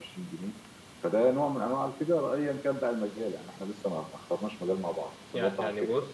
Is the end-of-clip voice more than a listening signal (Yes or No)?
Yes